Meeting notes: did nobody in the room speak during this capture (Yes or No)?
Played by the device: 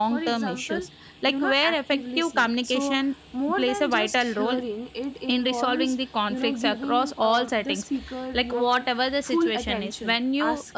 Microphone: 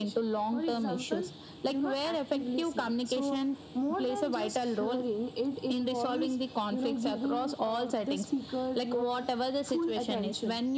Yes